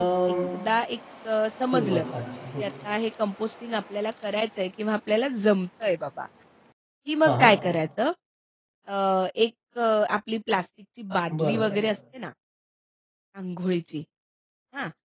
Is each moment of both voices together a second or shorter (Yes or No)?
Yes